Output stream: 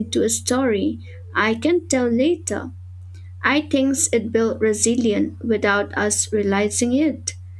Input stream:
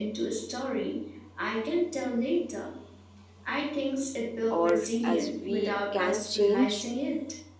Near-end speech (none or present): present